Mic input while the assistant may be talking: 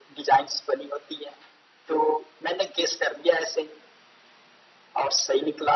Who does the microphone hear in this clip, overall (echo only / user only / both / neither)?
echo only